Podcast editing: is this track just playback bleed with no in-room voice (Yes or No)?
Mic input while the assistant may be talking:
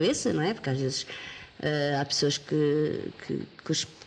Yes